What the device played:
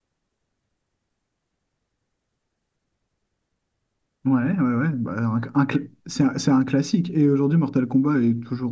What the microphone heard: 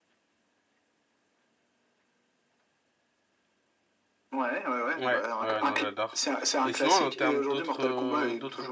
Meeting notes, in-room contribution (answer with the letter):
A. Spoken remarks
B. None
A